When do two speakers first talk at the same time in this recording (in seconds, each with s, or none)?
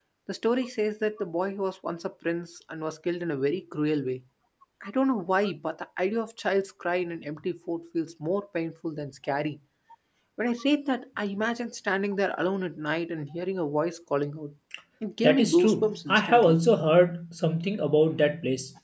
15.2 s